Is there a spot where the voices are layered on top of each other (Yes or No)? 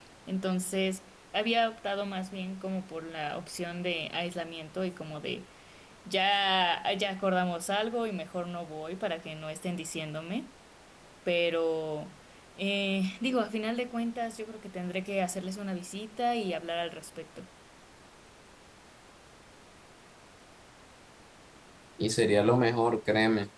No